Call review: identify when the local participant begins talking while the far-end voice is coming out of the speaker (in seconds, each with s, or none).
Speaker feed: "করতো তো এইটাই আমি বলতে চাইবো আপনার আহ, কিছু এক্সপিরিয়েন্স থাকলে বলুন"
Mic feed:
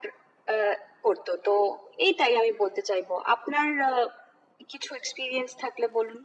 none